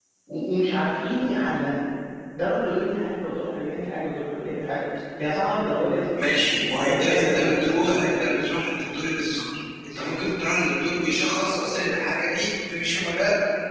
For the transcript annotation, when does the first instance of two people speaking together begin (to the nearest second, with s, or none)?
7 s